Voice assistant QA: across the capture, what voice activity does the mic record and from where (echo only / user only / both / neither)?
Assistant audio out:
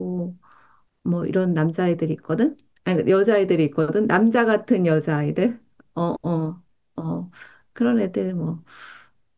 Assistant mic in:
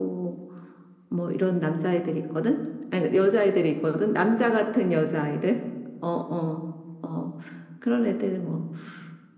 echo only